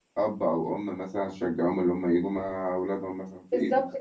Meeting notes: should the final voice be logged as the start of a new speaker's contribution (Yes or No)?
Yes